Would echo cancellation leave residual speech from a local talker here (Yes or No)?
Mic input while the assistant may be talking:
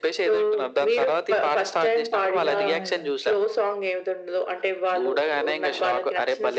Yes